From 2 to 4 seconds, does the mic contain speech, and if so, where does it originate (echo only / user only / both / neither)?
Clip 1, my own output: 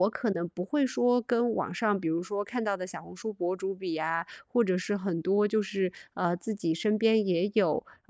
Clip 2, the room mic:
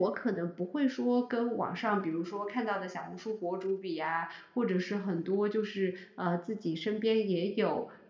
echo only